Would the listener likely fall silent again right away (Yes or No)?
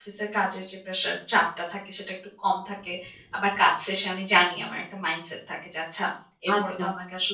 No